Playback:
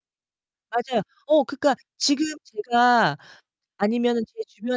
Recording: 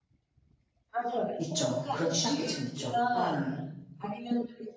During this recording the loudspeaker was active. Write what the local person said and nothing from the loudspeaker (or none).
있죠. 그런 취약계층이 있죠. 예.